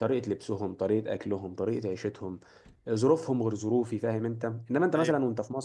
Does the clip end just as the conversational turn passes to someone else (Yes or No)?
No